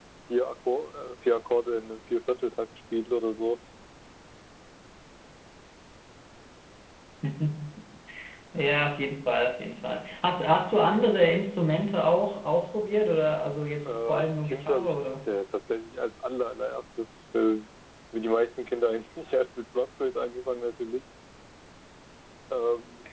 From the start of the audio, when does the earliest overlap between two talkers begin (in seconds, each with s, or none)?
13.8 s